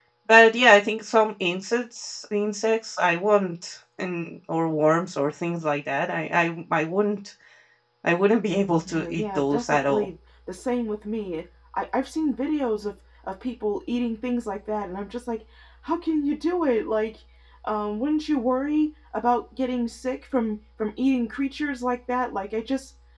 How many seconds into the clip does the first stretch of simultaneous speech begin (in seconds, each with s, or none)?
8.8 s